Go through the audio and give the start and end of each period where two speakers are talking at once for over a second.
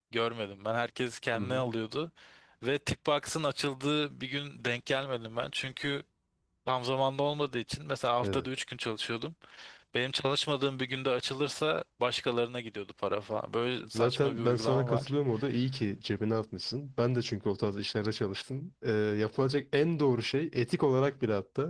13.9-15.1

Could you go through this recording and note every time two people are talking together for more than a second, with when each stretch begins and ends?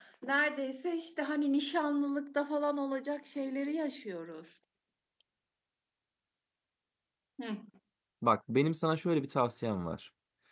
none

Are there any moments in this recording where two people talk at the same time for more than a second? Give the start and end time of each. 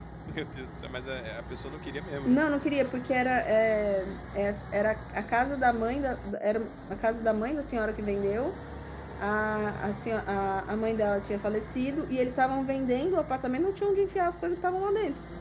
none

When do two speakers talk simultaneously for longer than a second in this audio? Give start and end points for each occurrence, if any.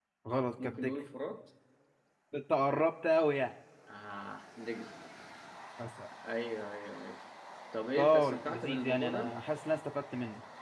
8.0-9.4

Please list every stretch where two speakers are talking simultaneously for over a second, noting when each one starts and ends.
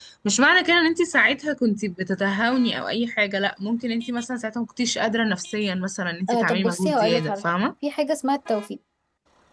6.3-7.5

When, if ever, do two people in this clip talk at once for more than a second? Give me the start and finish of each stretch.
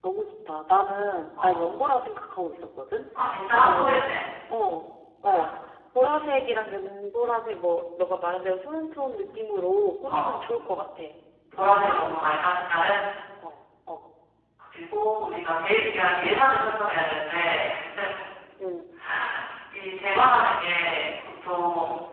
none

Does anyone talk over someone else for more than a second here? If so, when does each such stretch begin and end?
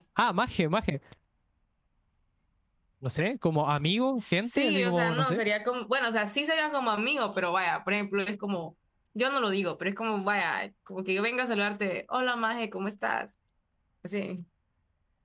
4.2-5.4

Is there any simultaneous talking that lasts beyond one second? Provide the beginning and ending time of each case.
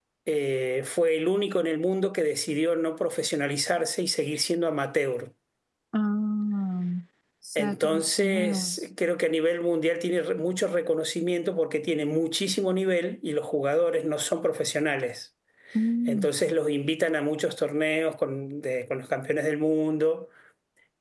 7.6-8.8

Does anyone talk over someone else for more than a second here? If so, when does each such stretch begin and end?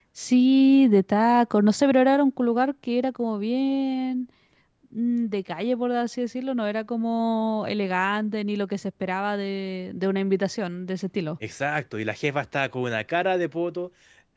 none

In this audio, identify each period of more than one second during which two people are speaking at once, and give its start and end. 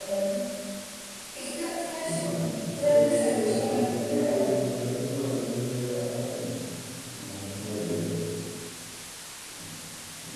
2.8-4.5

